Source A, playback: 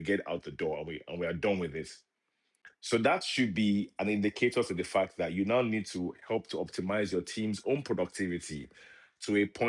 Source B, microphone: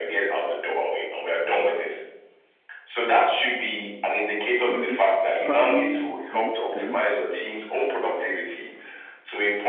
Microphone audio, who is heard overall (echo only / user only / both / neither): both